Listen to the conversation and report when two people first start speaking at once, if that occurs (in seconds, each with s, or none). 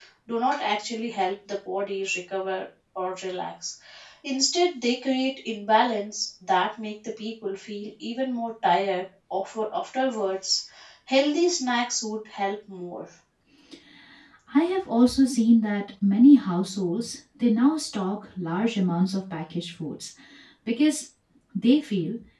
none